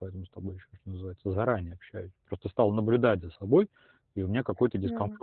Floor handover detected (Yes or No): No